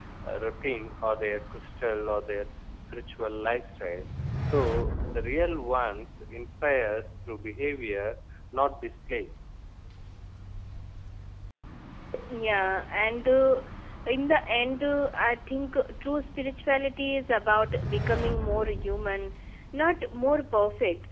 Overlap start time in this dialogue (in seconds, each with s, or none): none